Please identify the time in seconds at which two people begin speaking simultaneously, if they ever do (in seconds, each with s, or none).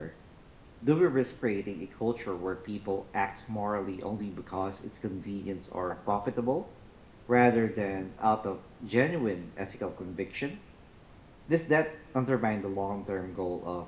none